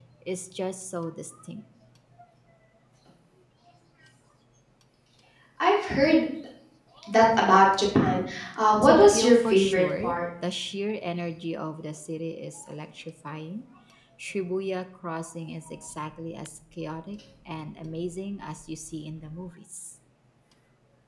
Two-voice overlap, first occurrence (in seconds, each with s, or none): 8.8 s